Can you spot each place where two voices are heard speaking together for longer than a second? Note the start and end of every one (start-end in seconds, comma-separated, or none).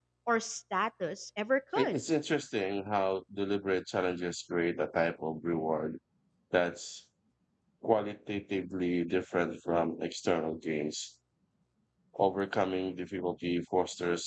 none